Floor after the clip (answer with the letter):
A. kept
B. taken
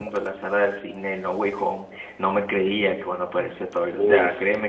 A